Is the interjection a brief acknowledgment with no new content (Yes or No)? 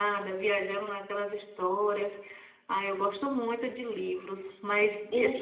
Yes